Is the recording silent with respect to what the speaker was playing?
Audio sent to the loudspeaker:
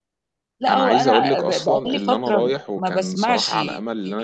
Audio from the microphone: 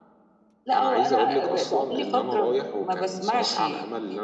No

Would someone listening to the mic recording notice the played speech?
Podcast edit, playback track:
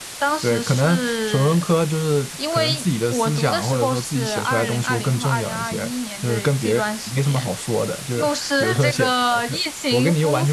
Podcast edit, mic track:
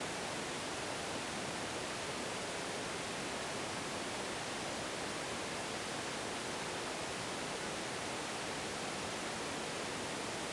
No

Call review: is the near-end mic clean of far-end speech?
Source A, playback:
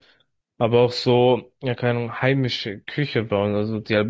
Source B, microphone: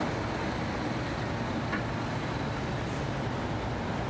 Yes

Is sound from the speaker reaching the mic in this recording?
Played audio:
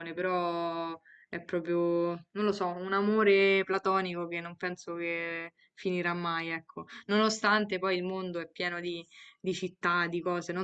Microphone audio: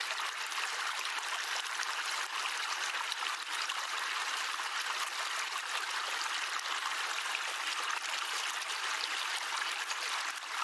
No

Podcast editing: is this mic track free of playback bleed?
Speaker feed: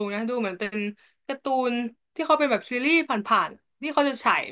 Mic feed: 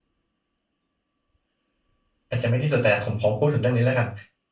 Yes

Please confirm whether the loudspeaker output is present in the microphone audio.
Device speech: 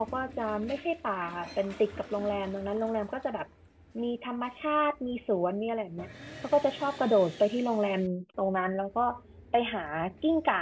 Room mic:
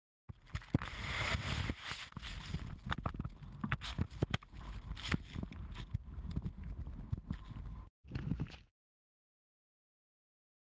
No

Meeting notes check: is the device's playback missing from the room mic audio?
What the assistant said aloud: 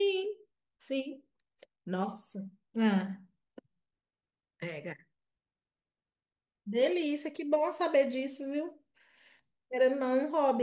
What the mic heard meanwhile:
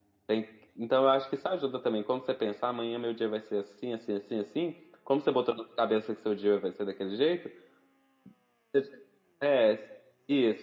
Yes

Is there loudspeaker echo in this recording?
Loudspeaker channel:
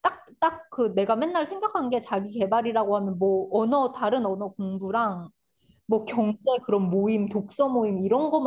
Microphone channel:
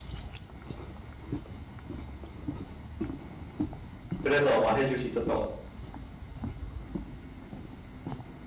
No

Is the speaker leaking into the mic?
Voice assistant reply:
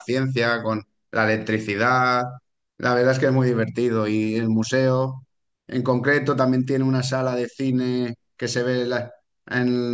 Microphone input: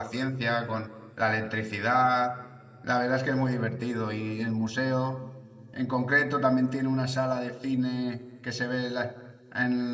Yes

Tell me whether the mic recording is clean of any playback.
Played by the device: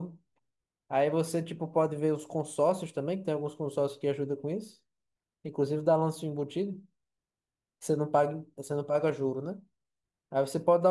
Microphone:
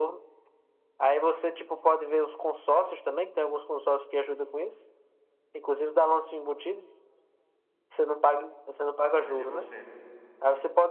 No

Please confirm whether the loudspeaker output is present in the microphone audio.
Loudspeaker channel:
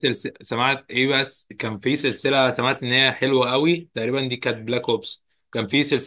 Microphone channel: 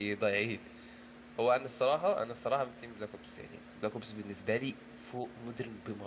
No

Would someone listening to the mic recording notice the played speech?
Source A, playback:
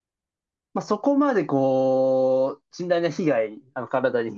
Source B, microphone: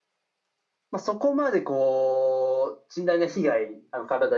Yes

